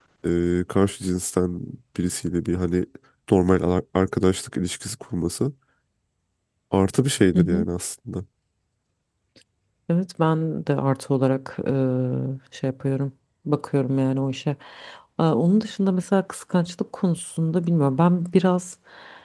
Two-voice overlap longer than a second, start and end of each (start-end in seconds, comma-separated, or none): none